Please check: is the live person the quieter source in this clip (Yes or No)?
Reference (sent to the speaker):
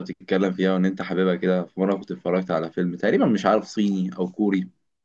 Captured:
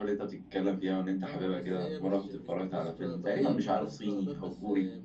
Yes